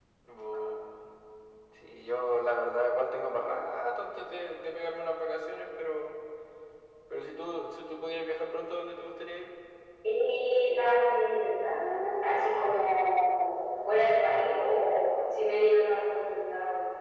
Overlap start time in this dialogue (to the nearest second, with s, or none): none